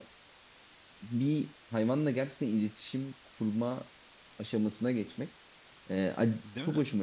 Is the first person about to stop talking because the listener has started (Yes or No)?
No